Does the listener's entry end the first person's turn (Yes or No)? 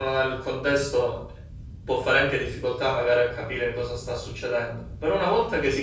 No